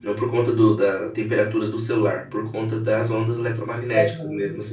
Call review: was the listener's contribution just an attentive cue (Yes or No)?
No